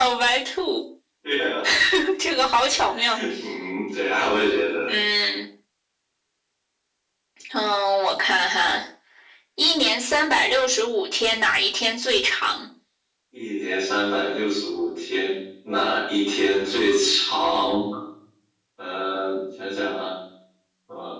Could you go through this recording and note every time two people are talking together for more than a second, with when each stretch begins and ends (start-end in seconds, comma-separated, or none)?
none